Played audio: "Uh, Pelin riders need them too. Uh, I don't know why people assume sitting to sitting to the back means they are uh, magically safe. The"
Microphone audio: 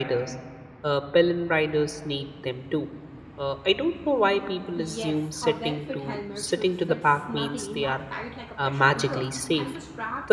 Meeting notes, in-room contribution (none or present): present